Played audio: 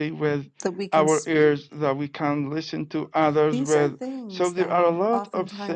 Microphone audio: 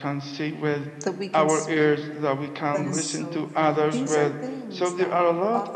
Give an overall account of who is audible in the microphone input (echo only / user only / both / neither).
both